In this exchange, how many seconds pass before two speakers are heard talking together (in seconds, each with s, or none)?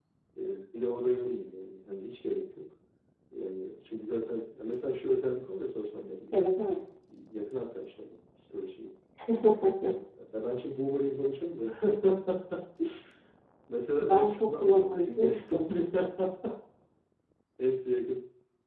14.0 s